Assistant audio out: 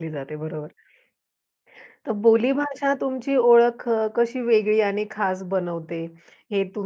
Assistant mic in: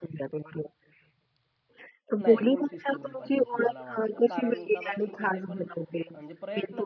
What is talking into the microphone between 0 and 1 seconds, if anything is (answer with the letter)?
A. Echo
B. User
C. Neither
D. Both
A